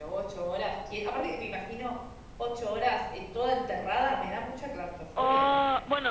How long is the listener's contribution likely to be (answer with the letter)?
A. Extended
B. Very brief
A